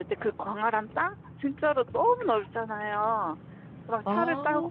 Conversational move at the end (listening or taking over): listening